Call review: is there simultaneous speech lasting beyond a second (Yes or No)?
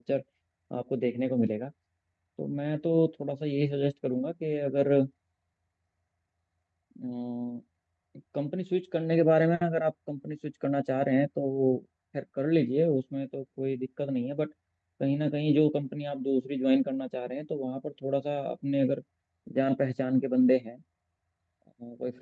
No